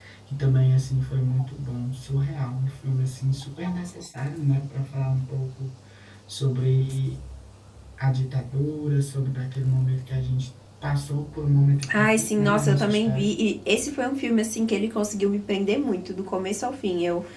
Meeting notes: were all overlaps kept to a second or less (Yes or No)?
No